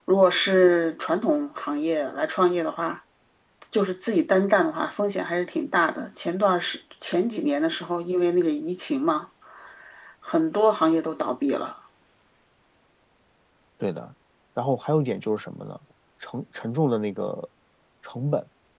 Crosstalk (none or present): none